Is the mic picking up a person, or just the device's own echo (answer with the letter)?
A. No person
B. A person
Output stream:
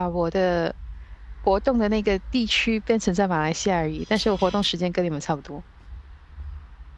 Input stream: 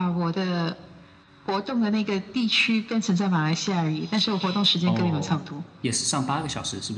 B